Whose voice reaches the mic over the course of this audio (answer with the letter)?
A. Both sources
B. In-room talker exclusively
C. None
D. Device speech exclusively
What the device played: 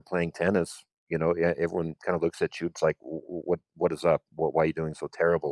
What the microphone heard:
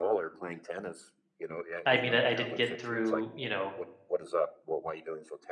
A